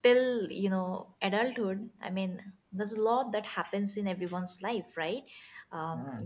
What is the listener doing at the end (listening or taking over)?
listening